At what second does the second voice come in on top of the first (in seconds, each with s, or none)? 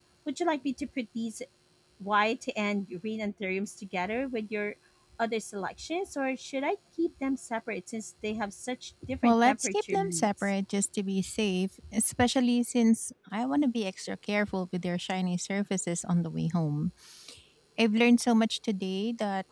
9.0 s